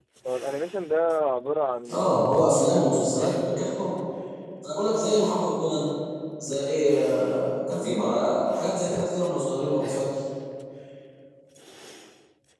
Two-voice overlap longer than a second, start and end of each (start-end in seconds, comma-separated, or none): 1.9-3.3